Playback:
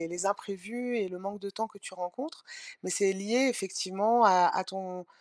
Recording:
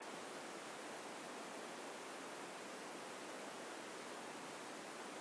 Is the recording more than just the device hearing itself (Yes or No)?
No